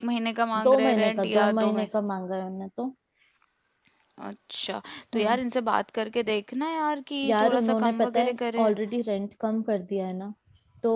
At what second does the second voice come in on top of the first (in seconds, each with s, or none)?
0.7 s